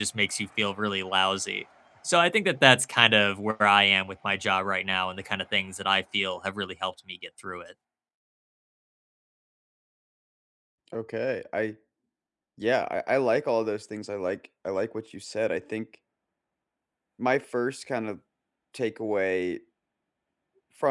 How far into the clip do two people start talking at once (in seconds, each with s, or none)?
none